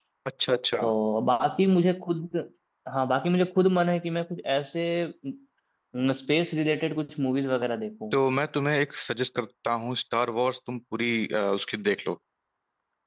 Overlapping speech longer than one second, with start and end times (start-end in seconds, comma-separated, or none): none